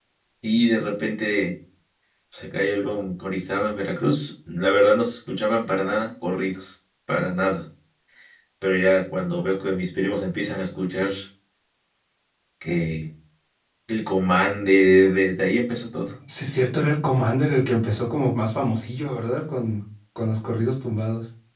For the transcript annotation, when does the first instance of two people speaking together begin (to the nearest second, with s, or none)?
none